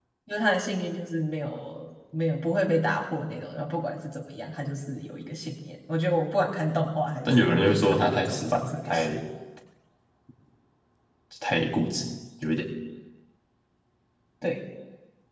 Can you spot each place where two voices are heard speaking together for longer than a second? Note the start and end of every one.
7.2-9.2

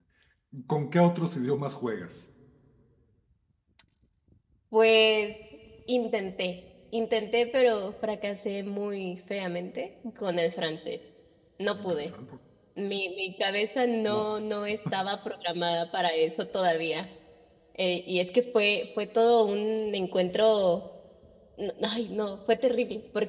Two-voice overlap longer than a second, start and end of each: none

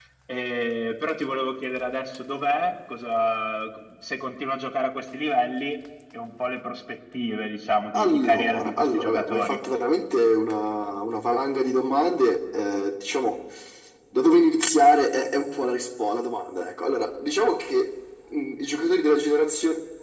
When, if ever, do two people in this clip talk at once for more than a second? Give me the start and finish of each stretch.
7.9-9.6

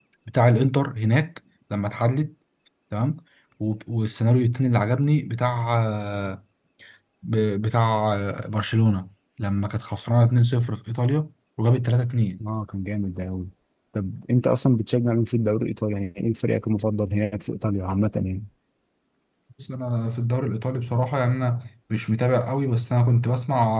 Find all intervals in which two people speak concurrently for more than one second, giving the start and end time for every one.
none

